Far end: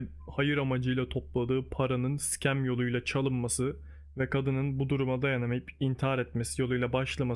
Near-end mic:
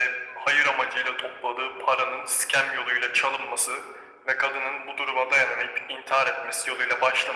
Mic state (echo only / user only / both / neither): echo only